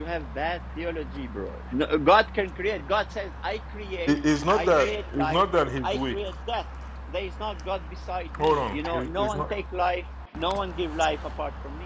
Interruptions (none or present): present